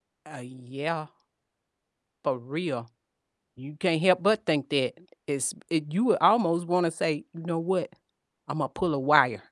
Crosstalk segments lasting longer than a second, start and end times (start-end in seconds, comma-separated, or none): none